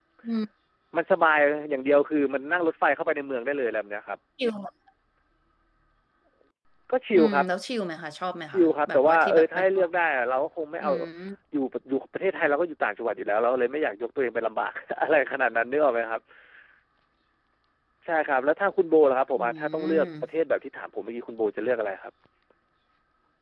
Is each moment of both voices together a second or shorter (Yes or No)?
No